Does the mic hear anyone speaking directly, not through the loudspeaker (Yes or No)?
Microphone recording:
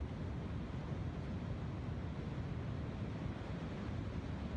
No